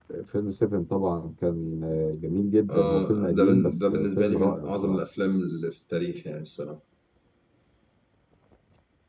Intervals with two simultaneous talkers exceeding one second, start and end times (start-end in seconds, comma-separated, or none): 2.7-5.0